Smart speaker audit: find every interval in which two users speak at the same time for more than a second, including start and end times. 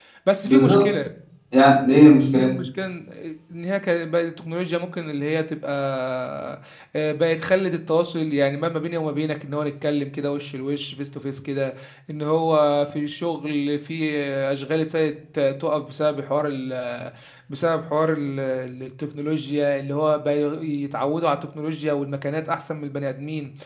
none

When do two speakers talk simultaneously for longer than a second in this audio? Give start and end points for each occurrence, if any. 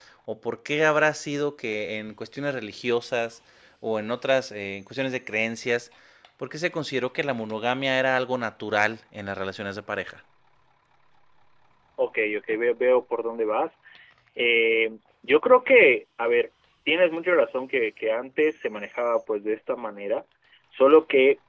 none

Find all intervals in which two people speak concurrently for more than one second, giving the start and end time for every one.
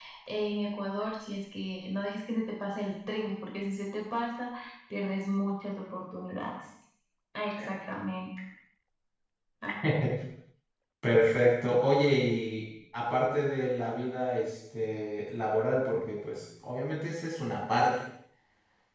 none

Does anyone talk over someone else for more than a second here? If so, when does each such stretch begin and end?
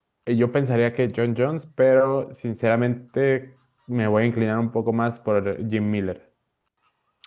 none

